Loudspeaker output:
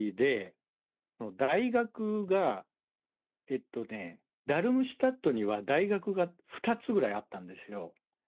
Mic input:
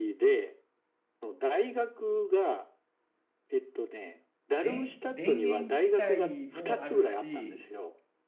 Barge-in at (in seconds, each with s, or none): 4.5 s